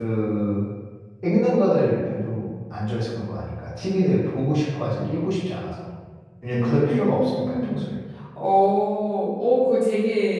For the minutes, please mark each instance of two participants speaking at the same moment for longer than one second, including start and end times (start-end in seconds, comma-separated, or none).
6.5-7.9